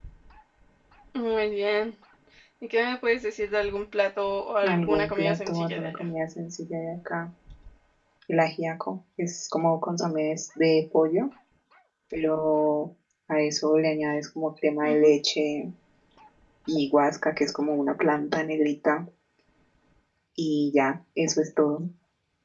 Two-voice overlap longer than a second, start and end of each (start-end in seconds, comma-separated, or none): 4.6-6.1